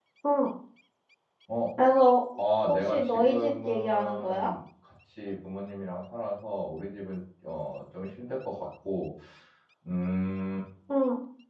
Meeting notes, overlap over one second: present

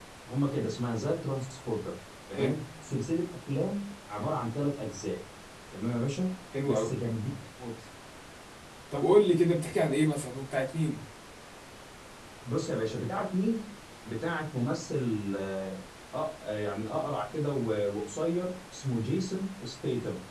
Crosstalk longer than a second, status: none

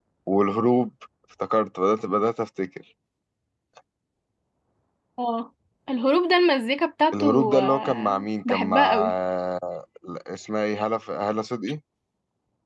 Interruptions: present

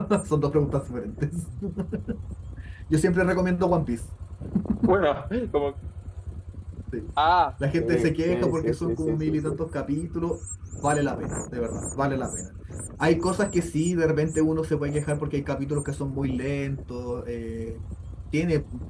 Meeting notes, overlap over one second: present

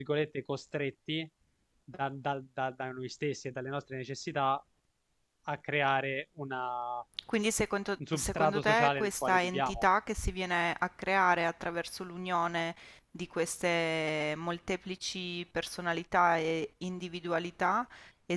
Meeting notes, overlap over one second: present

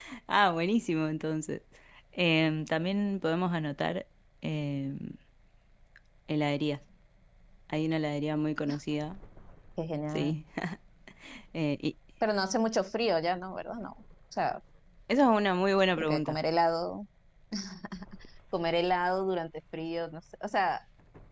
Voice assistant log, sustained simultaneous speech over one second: none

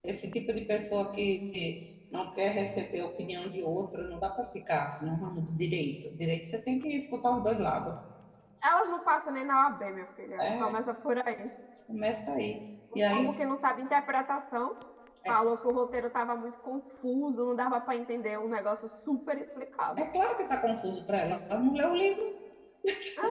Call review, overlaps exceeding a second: none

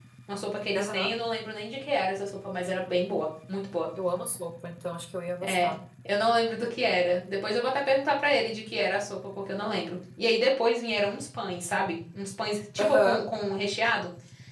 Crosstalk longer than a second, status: none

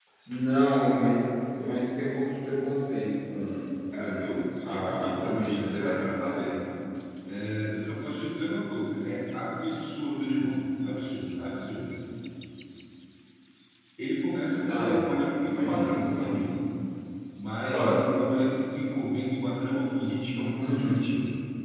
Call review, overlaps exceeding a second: present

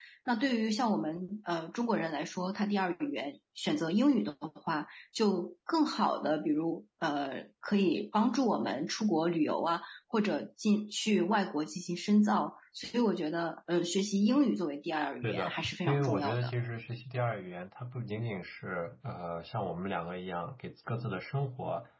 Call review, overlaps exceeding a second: present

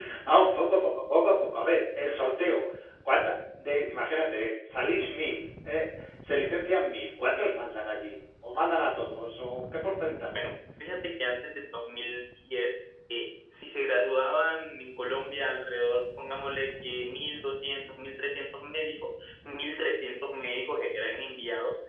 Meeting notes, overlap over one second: none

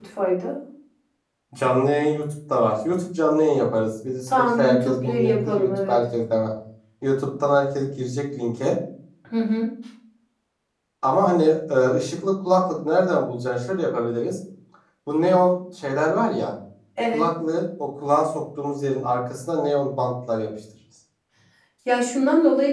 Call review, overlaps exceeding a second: present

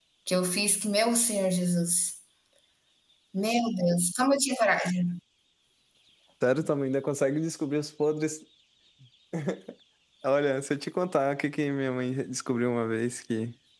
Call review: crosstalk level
none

